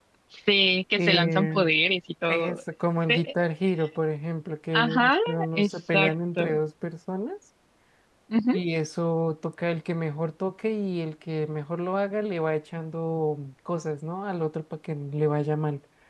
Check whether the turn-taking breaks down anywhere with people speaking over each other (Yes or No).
Yes